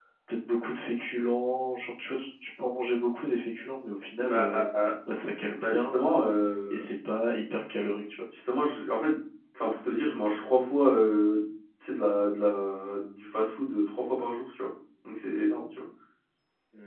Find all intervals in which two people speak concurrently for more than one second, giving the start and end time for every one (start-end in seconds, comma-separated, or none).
none